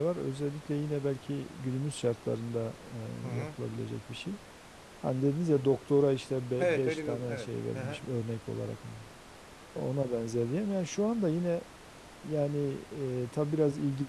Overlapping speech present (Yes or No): Yes